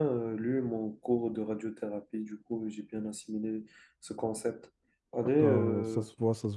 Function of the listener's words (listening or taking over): taking over